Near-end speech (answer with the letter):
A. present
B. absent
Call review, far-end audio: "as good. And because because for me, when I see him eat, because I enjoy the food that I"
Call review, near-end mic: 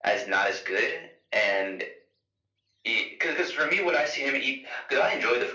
B